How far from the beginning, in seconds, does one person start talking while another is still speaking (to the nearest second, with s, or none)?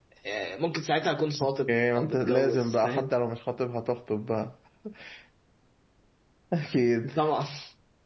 2 s